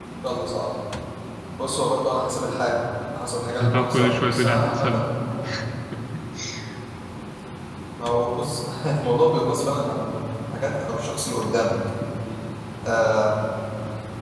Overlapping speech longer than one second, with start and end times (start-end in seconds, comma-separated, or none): 3.6-4.9